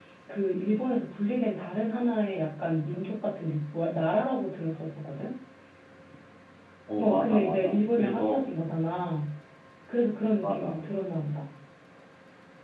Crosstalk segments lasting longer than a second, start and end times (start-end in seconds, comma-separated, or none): 7.0-8.3